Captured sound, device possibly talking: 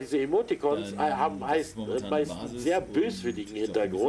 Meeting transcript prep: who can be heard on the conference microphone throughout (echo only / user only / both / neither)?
both